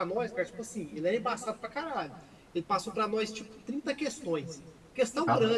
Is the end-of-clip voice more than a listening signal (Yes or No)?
No